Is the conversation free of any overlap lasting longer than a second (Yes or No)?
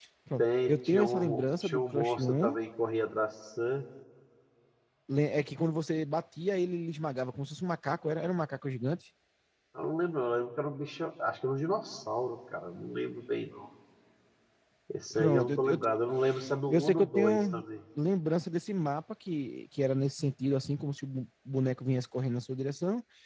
No